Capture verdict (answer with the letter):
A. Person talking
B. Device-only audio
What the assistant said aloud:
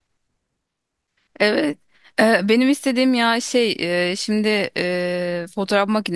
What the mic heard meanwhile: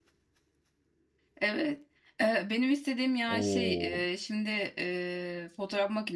A